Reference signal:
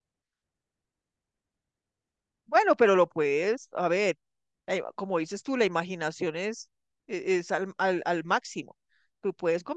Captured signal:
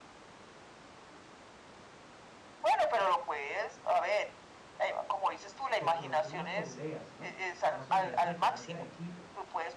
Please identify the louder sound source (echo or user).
echo